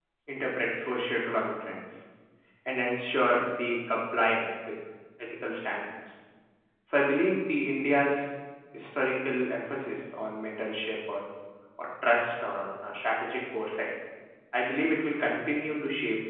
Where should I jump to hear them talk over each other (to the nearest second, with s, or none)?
none